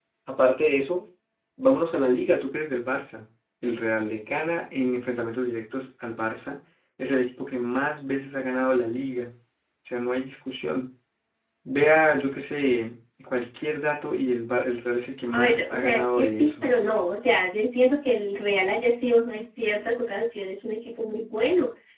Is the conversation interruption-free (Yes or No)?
No